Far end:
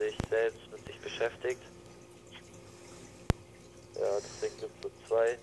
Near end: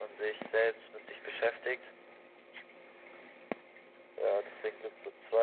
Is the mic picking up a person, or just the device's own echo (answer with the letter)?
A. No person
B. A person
A